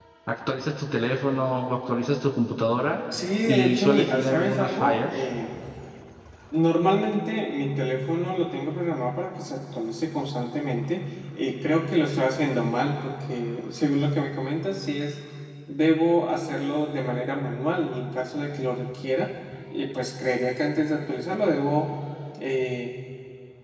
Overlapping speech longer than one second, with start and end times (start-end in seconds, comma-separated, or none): 3.5-5.1